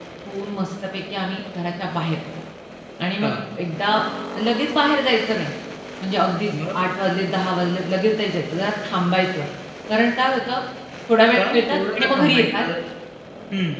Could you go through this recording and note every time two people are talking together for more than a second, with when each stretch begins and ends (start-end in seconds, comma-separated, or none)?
11.4-12.6